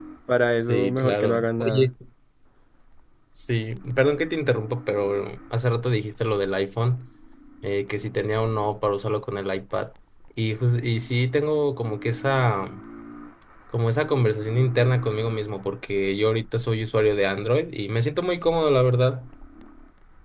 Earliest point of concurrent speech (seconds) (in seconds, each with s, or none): 0.6 s